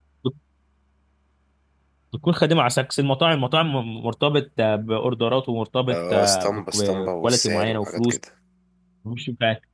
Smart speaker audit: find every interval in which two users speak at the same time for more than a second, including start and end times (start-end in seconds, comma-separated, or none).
5.9-8.2